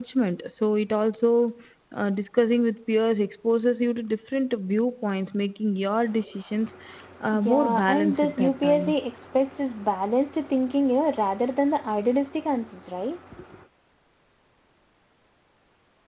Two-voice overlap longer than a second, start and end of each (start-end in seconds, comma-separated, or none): 7.4-8.9